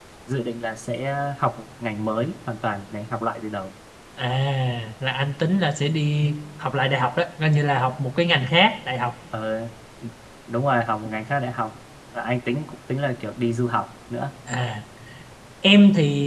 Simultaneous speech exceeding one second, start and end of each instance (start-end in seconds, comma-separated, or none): none